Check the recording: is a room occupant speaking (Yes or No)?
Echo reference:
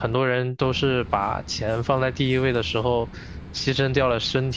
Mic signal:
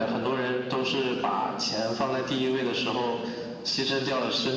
No